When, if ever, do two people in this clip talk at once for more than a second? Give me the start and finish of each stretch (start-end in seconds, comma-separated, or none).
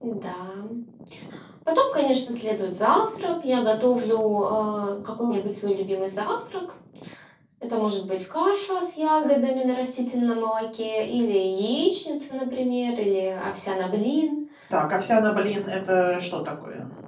none